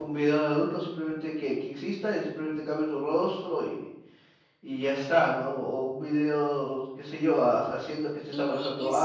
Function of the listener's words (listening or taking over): taking over